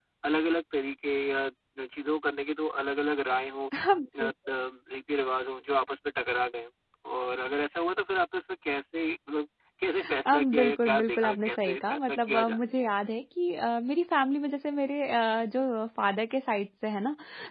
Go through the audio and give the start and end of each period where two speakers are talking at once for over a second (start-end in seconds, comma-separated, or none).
10.3-12.6